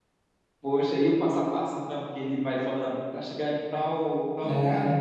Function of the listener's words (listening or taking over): listening